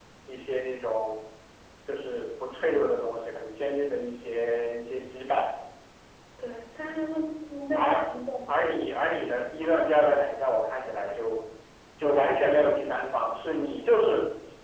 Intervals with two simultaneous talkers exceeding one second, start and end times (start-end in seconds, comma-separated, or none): none